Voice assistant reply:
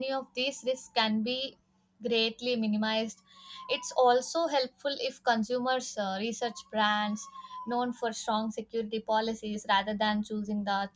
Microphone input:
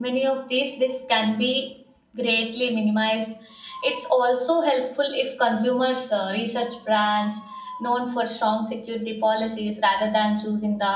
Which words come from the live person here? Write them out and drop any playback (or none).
none